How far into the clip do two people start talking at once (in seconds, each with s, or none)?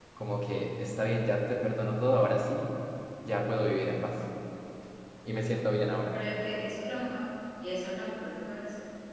none